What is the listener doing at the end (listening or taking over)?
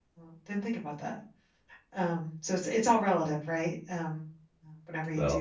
taking over